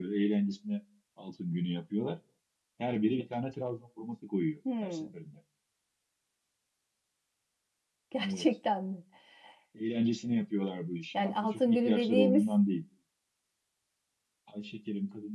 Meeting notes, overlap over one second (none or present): present